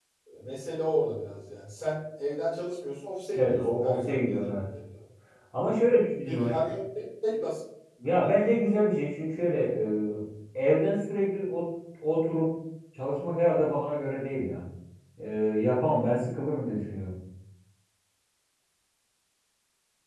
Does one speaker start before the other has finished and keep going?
Yes, from 3.4 s

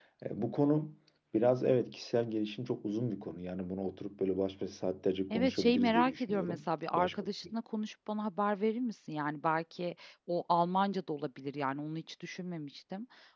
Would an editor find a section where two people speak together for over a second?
Yes, from 5.3 s

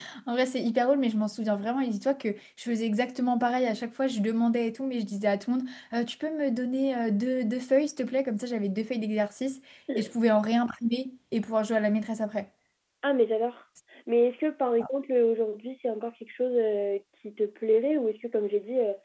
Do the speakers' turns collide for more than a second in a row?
No

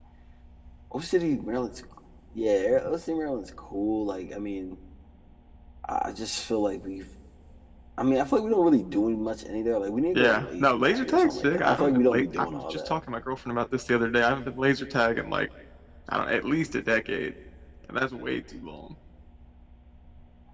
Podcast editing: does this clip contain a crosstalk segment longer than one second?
Yes, from 10.2 s

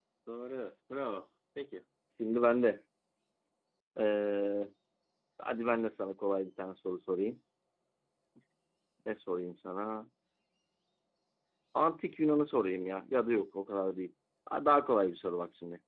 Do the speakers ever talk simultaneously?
No

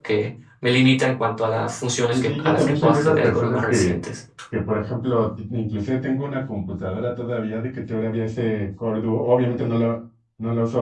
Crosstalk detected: Yes, from 2.1 s

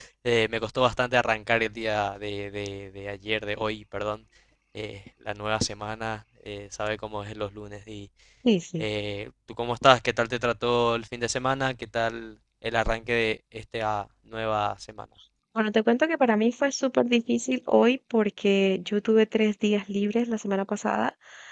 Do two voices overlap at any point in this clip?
No

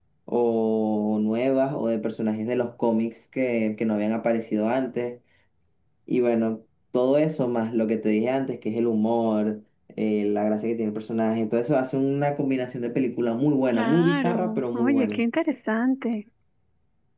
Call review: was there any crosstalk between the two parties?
Yes, from 13.7 s

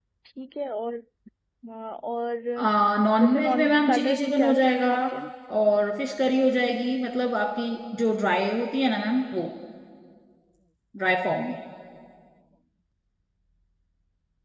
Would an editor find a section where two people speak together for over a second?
Yes, from 3.2 s

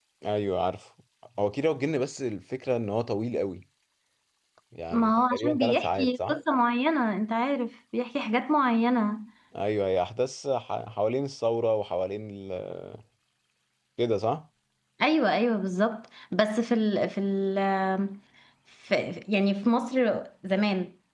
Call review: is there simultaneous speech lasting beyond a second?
Yes, from 4.9 s

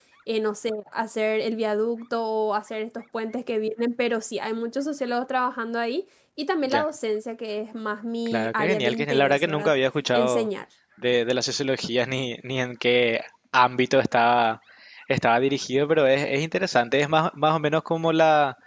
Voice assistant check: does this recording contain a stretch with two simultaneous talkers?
Yes, from 8.3 s

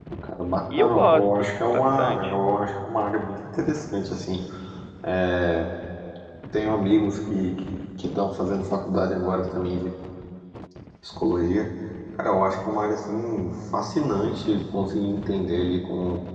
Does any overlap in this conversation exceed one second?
Yes, from 0.7 s

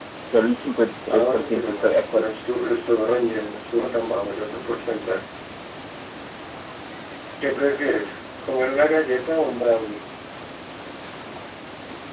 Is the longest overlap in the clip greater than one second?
Yes, from 1.1 s

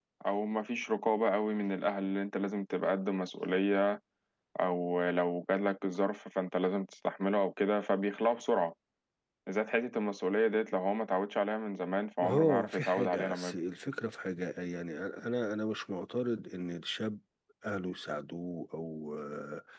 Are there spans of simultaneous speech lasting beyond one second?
Yes, from 12.2 s

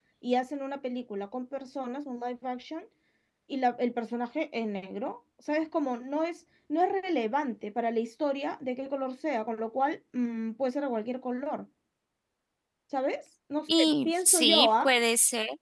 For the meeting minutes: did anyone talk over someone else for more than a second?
Yes, from 13.7 s

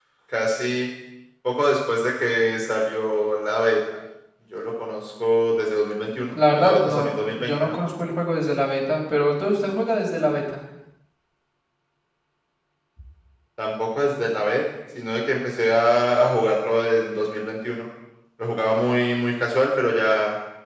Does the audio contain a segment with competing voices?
Yes, from 6.3 s

